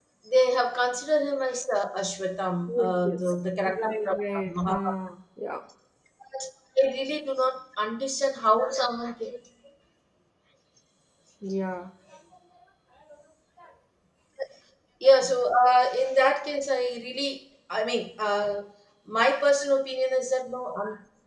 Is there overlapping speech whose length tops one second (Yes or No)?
Yes